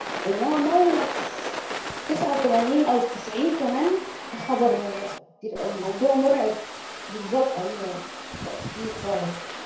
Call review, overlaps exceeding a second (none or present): none